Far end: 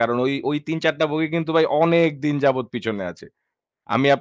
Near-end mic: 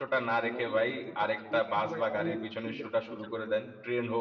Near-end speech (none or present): present